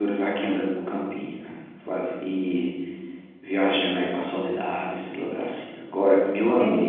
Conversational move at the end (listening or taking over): listening